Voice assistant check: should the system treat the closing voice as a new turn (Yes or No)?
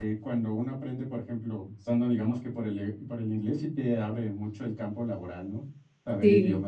Yes